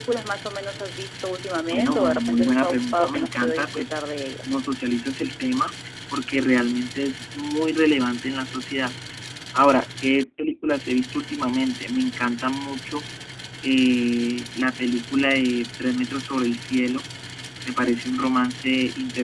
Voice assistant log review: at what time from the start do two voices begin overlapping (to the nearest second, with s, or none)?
2 s